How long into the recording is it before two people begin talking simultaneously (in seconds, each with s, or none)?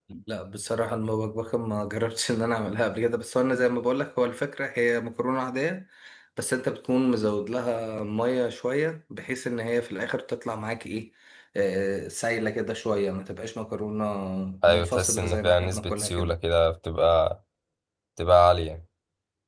14.7 s